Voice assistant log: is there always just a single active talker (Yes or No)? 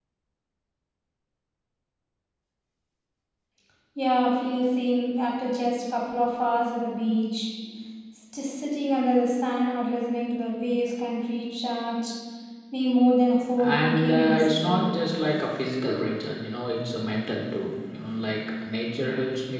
No